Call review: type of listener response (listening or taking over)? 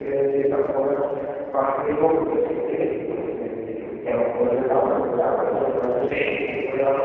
listening